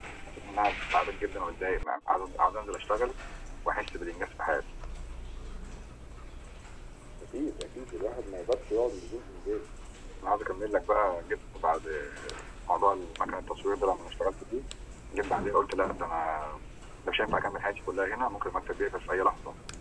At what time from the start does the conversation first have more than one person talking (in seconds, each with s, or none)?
none